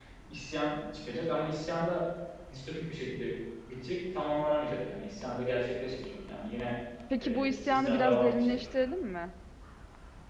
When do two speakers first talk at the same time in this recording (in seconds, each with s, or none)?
7.2 s